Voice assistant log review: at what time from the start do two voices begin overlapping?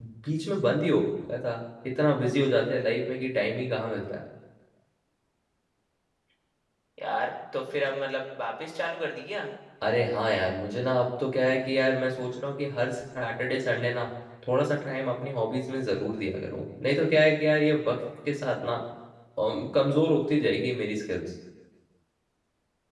none

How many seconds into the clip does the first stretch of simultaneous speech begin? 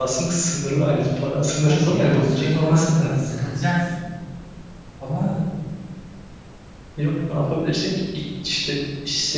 2 s

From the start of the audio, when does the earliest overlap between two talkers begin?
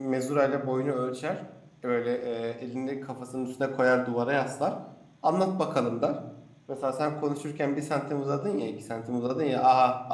none

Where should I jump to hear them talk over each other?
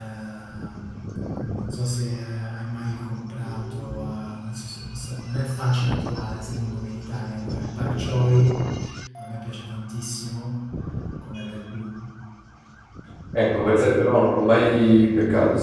none

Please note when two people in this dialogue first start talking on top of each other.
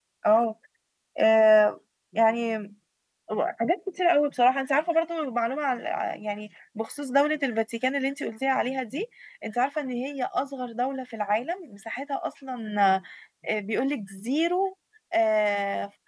none

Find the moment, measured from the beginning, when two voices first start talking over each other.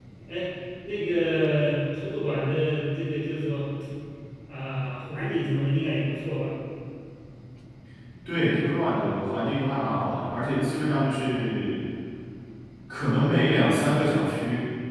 none

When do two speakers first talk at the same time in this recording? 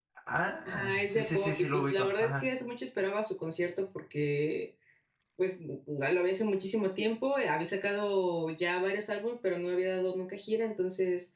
1 s

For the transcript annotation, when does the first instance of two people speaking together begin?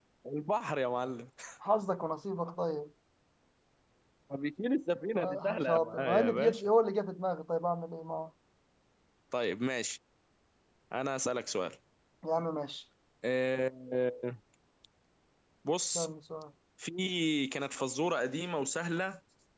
5 s

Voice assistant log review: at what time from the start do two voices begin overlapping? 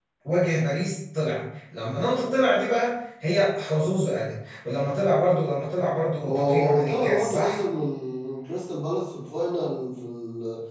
6 s

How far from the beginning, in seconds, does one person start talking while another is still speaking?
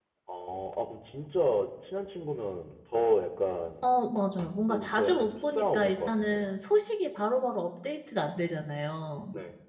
5 s

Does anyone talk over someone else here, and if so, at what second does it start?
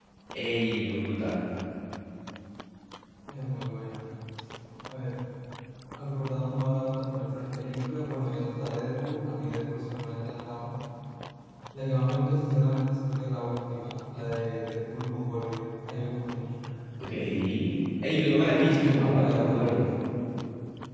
19 s

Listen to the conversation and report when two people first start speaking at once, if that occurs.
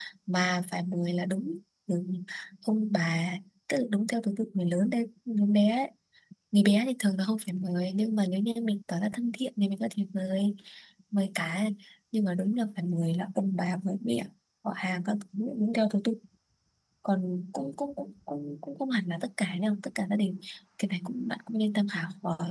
none

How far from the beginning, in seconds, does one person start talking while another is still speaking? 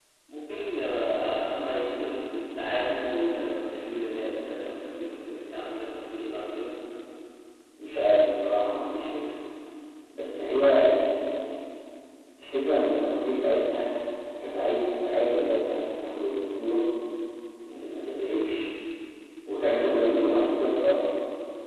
none

